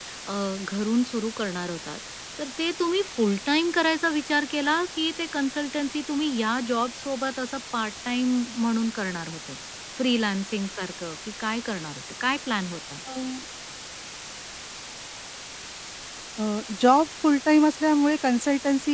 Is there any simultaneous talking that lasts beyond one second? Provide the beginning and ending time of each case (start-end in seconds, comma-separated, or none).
none